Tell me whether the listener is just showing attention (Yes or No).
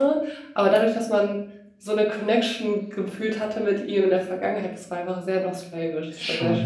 No